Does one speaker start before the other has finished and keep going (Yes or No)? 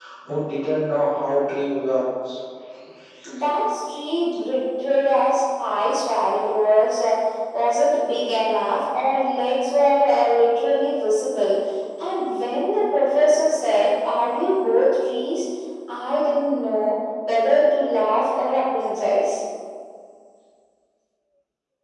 No